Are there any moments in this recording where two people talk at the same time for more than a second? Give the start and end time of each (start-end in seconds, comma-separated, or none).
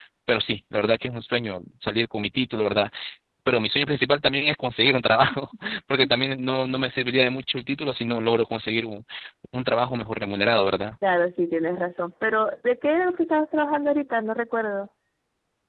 none